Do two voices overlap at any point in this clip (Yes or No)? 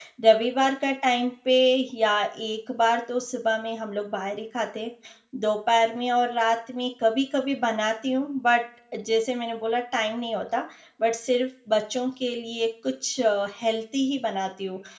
No